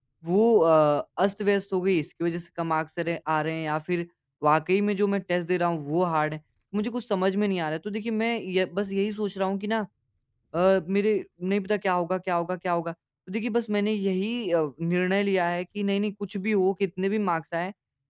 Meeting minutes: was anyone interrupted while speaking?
No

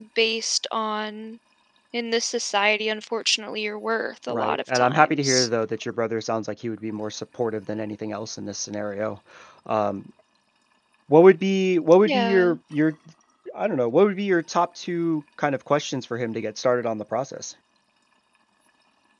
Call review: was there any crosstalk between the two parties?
Yes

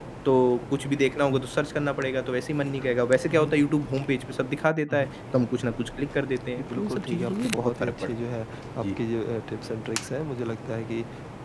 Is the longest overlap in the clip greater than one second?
Yes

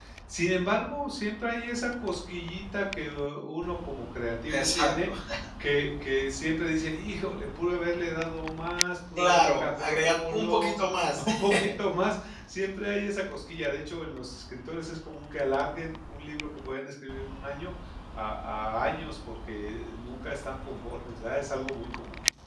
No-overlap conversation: No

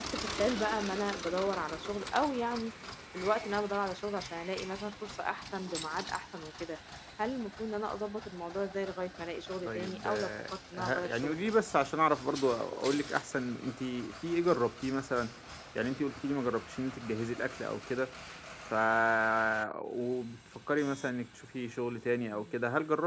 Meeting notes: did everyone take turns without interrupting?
No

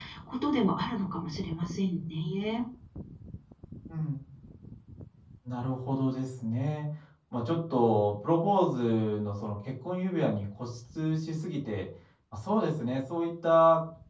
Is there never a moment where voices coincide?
Yes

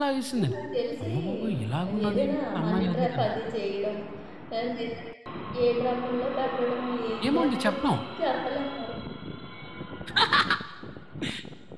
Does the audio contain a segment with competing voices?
Yes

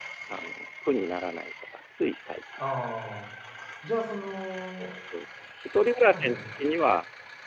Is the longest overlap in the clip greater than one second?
No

